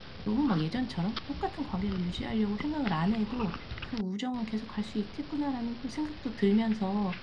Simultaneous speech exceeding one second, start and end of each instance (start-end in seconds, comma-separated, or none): none